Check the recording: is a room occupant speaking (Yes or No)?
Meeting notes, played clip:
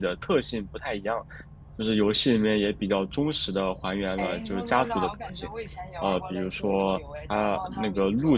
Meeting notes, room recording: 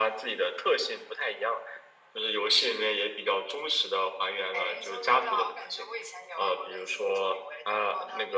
No